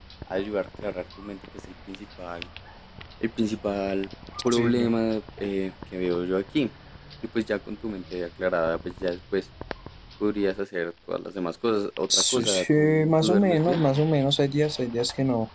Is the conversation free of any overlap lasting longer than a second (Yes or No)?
No